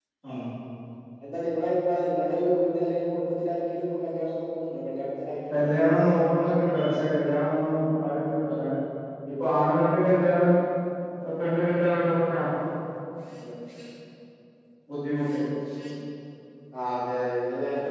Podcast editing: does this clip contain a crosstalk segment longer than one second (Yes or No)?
No